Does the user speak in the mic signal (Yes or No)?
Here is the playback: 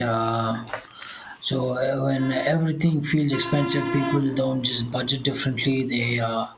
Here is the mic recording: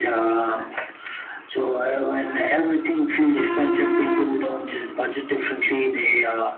No